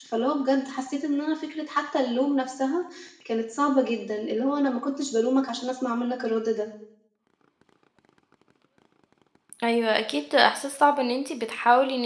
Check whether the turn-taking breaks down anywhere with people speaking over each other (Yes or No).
No